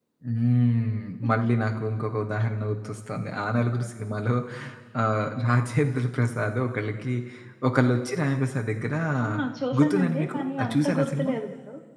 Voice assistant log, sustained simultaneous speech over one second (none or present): present